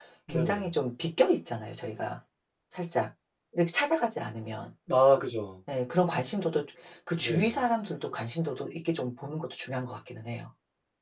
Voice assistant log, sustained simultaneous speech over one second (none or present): none